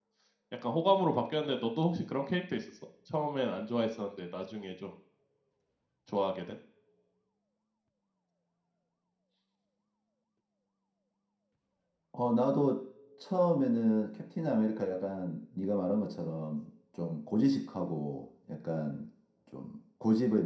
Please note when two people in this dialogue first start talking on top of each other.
none

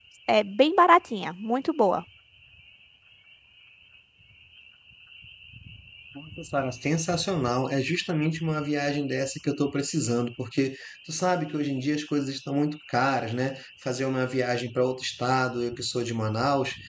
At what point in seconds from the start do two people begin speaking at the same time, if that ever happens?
none

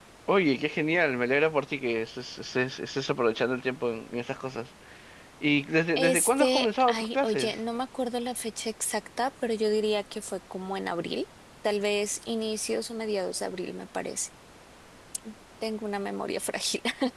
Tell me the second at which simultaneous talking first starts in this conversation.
6 s

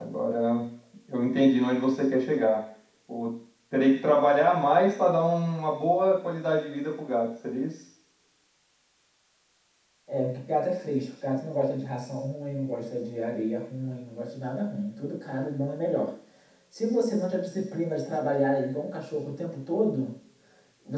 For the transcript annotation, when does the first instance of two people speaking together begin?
none

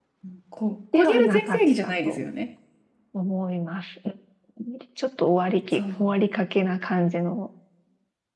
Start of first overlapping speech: 1 s

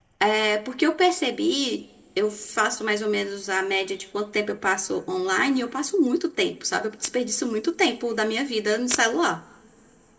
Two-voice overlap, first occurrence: none

